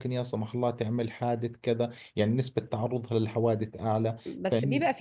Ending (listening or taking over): taking over